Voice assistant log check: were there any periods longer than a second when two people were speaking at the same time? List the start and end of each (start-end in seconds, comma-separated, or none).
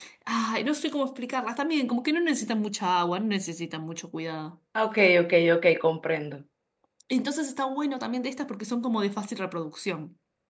none